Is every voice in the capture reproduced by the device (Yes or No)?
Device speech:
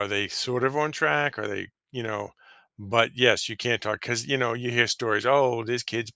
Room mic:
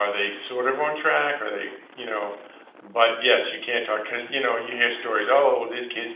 Yes